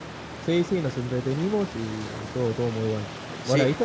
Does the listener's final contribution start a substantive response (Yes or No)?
Yes